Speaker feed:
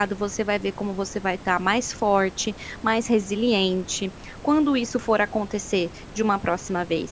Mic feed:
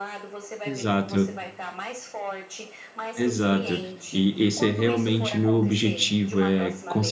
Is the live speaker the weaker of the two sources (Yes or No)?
No